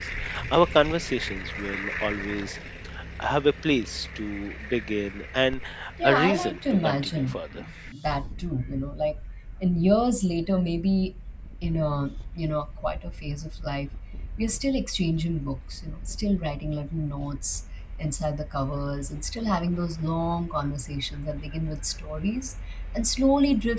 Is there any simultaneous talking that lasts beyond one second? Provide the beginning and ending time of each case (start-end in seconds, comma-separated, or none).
6.0-7.4